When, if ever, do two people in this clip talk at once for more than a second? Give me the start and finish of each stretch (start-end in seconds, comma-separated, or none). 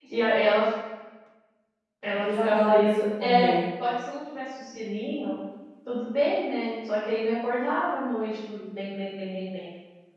2.1-3.5